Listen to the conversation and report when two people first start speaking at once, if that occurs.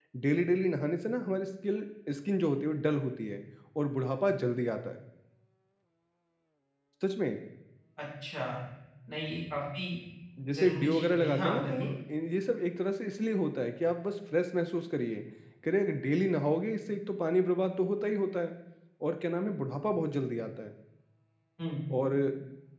10.6 s

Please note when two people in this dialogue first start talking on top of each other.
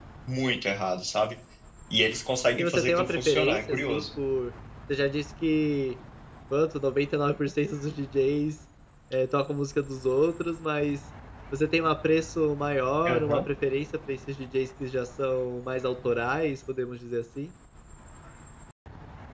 2.6 s

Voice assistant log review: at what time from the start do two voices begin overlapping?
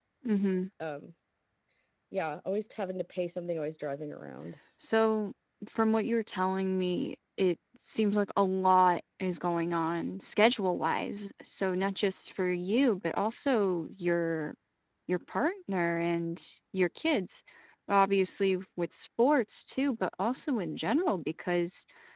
none

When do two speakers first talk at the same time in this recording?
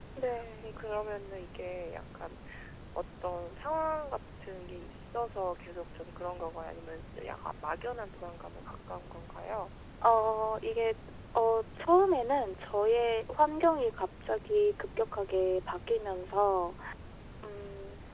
none

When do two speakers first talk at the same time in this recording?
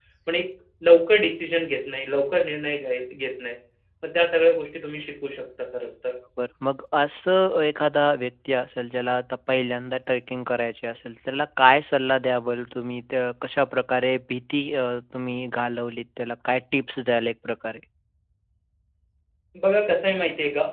none

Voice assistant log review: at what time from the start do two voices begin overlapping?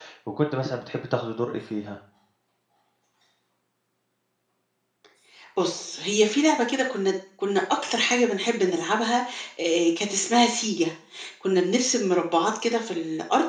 none

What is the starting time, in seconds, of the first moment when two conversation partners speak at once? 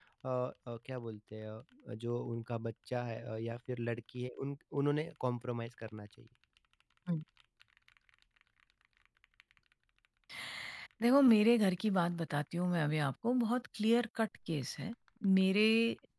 none

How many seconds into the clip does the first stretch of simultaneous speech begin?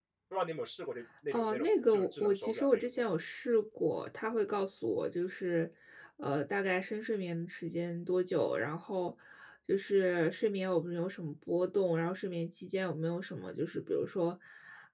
1.3 s

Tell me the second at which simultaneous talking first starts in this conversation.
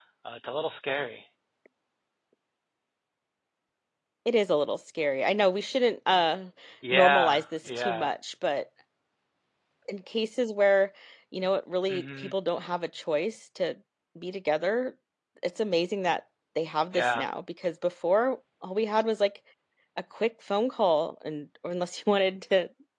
6.9 s

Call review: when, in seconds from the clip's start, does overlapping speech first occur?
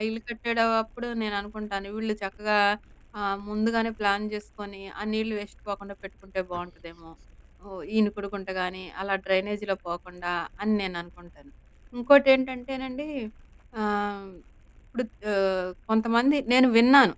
none

